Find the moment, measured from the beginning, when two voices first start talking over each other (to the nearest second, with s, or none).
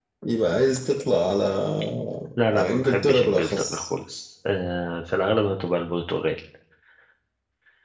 3 s